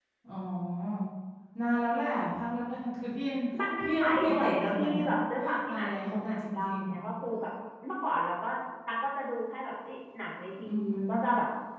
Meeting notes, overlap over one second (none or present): present